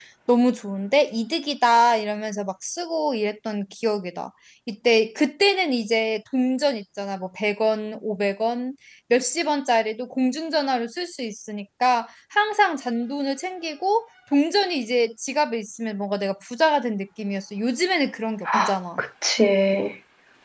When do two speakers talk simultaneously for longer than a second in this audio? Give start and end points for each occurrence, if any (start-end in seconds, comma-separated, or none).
none